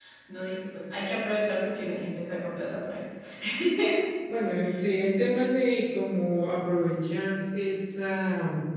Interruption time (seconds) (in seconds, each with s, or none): none